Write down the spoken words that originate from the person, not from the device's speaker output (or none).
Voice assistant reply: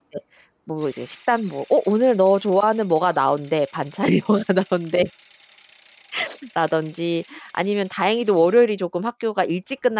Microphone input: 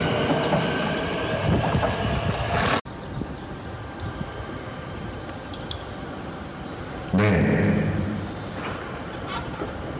네.